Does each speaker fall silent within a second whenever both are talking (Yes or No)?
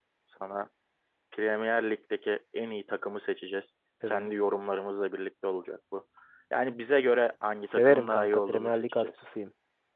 No